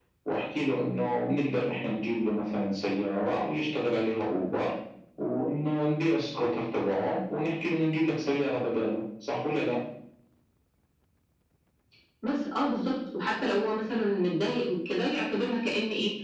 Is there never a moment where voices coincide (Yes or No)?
Yes